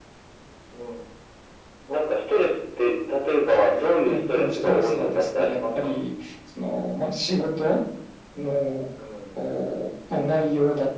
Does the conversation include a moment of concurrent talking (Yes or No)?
Yes